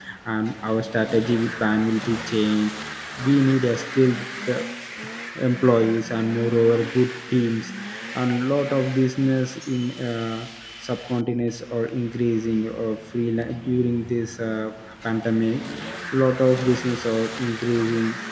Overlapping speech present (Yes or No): No